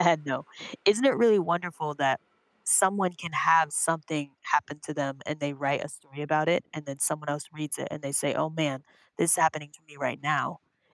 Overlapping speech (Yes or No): No